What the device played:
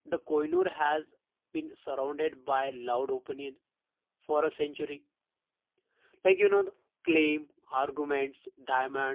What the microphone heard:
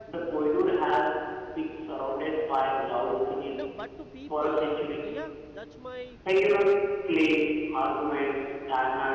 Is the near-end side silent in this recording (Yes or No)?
No